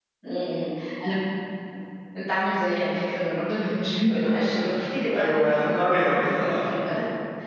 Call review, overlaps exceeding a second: present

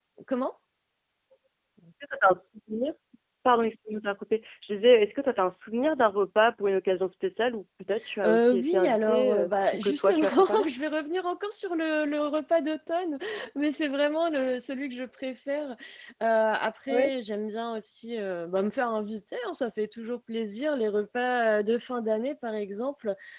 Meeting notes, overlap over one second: present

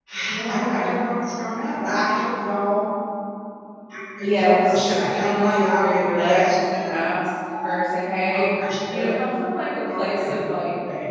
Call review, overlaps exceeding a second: present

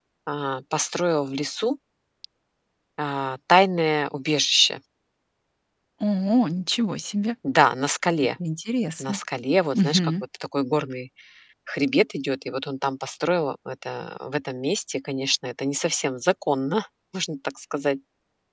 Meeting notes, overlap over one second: none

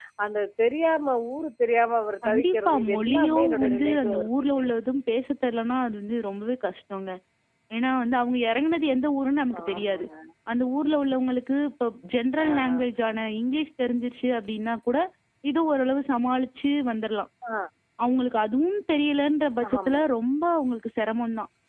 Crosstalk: present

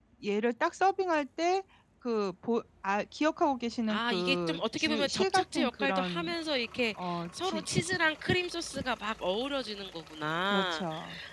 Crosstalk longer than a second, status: present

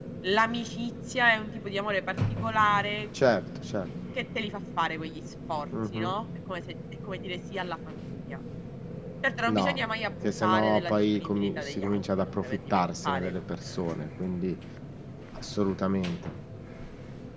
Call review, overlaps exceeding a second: present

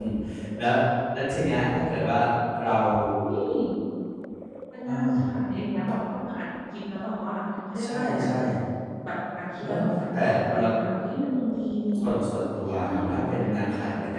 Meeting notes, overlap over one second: present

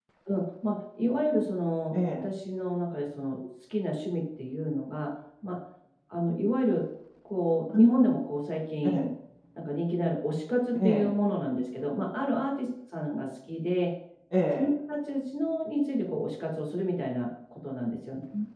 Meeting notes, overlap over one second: none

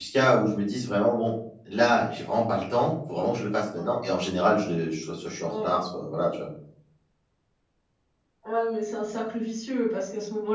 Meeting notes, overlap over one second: none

